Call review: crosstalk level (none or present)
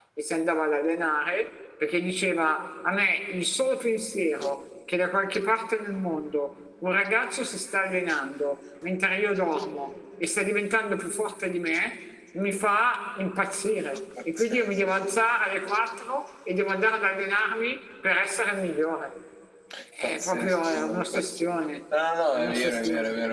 present